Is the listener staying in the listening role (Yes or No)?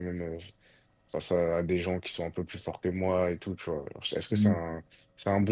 Yes